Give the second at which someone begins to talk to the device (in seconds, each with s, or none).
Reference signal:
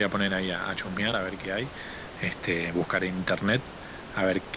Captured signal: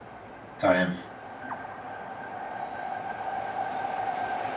0.6 s